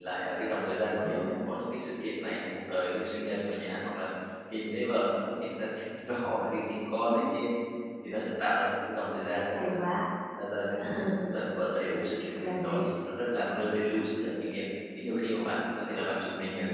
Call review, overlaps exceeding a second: none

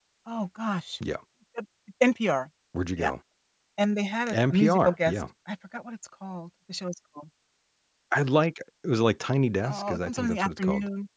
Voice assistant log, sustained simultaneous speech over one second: present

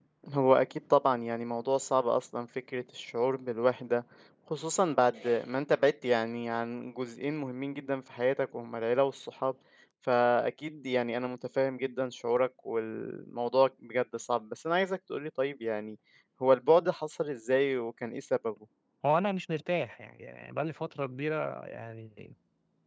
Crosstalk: none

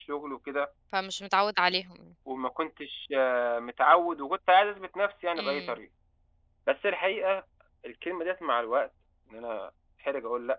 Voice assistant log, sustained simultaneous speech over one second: none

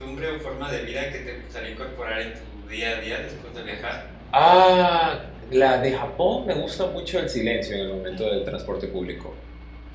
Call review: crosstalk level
none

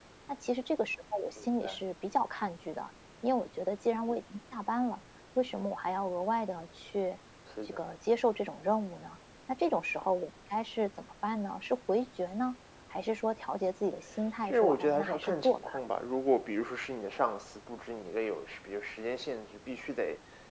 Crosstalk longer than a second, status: present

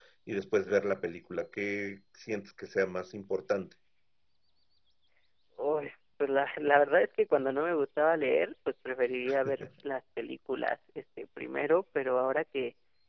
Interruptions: none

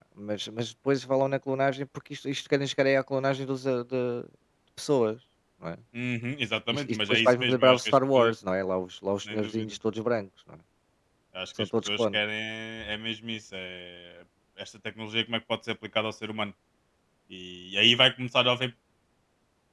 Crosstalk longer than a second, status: present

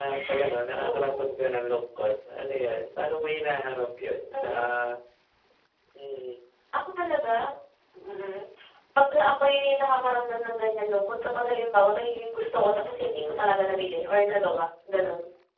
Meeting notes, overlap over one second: none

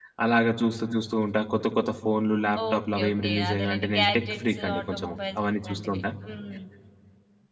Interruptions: present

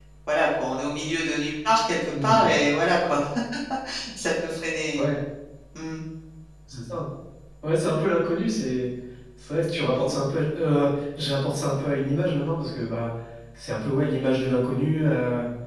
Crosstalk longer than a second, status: none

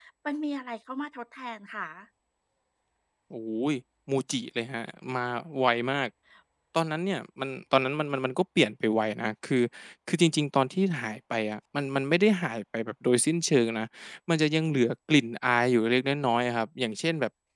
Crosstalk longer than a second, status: none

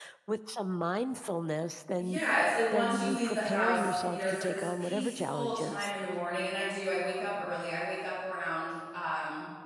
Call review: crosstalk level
present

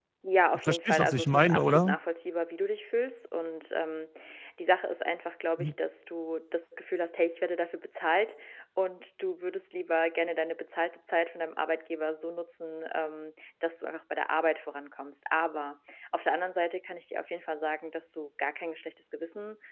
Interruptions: present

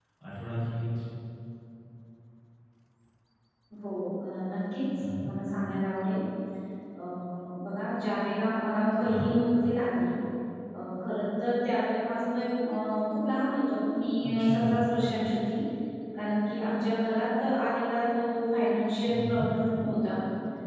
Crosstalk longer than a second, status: none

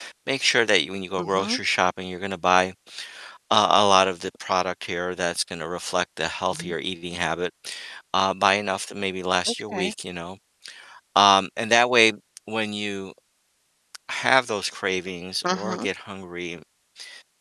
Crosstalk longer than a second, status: none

